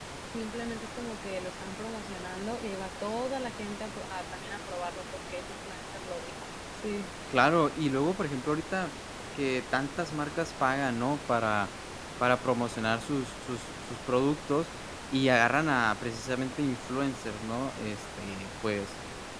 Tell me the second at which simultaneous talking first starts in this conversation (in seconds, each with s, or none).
none